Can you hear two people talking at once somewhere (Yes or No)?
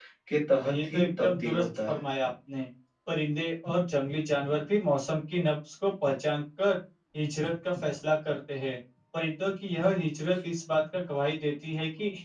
Yes